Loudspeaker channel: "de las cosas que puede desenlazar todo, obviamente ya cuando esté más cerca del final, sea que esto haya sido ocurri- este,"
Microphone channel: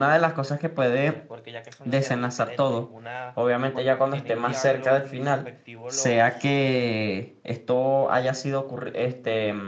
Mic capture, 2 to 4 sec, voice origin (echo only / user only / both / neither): both